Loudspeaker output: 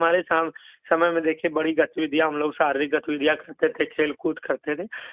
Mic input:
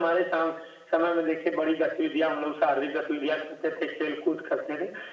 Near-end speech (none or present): none